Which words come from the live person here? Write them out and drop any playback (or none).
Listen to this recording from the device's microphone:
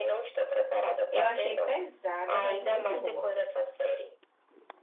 Eu achei pesada, mas muito boa.